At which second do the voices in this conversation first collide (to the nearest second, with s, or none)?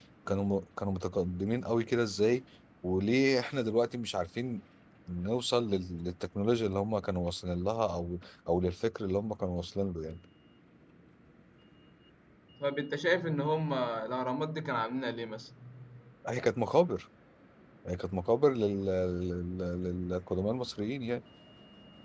none